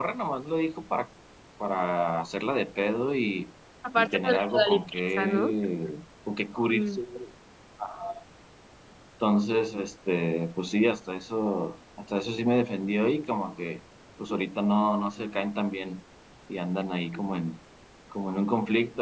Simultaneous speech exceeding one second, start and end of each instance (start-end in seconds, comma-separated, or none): 4.0-5.6